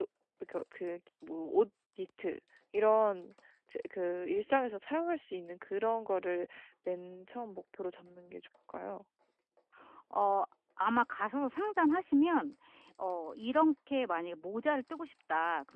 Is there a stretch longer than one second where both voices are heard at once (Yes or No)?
No